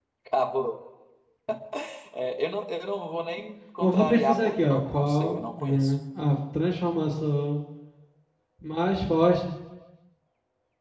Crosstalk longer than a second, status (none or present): present